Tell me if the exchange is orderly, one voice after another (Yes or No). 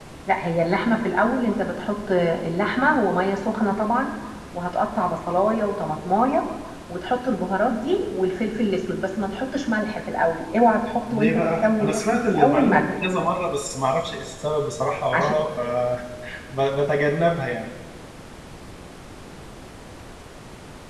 No